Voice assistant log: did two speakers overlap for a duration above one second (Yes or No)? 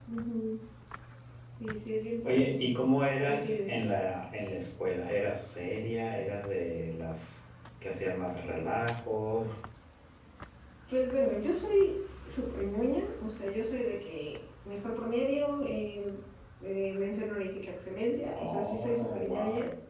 Yes